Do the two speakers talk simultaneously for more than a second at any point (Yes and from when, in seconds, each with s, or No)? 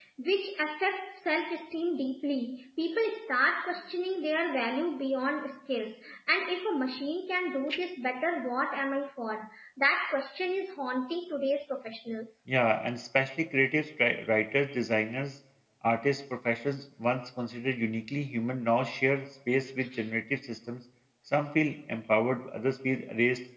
No